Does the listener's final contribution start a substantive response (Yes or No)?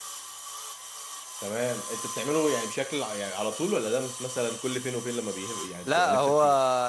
Yes